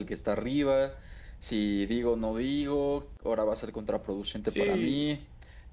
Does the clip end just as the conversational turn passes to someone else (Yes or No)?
No